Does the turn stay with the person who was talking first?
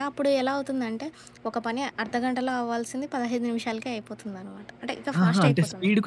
No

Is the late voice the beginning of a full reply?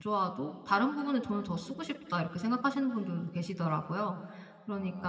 No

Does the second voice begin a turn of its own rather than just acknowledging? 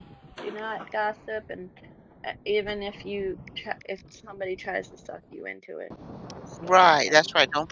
Yes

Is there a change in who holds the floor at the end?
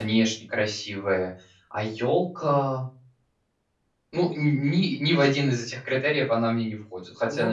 Yes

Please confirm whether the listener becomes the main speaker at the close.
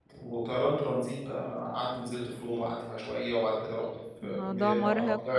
Yes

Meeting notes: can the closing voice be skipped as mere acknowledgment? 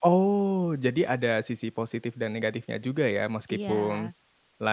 Yes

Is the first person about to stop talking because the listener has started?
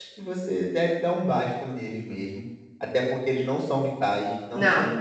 No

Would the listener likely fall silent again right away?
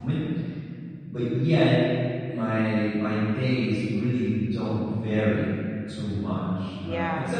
Yes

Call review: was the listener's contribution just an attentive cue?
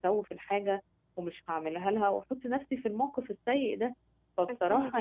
Yes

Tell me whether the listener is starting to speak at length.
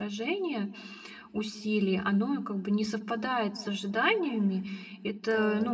No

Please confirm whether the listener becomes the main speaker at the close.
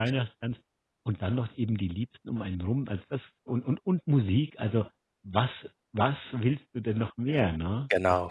Yes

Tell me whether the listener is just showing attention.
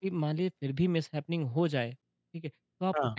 Yes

